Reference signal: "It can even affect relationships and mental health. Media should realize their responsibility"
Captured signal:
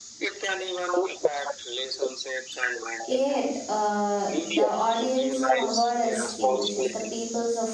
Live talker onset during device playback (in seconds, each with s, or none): 3.0 s